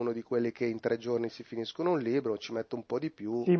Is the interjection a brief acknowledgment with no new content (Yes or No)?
No